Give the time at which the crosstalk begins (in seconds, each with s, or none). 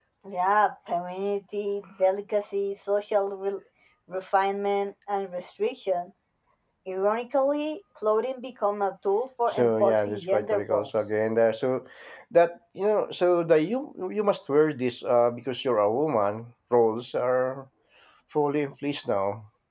9.5 s